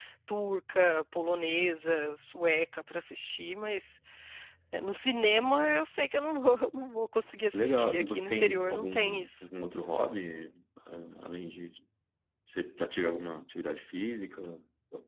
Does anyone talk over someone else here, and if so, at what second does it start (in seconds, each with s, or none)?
7.5 s